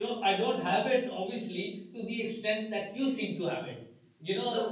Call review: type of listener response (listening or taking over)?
taking over